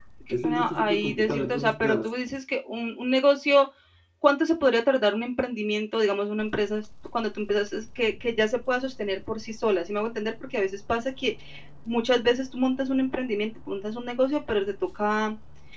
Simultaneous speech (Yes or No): Yes